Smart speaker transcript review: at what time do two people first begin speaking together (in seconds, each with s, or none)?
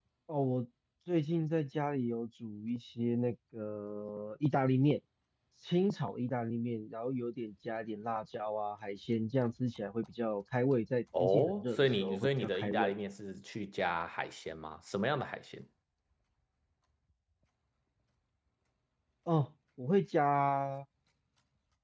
11.1 s